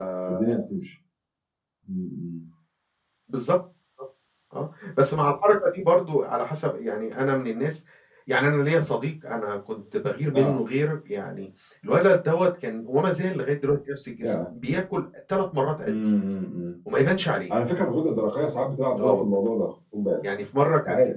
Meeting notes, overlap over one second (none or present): none